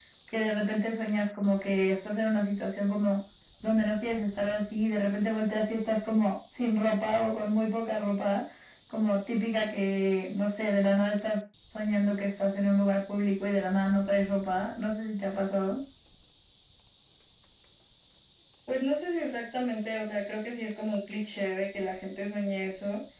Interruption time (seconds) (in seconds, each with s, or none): none